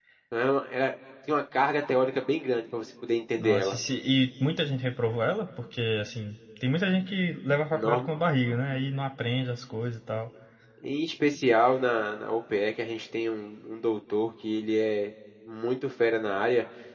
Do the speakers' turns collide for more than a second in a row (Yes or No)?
No